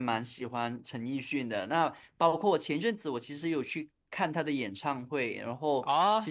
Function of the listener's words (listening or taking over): taking over